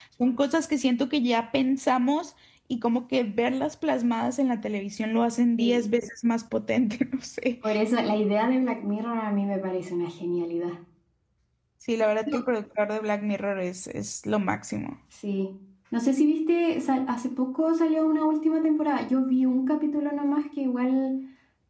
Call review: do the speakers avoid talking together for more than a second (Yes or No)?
Yes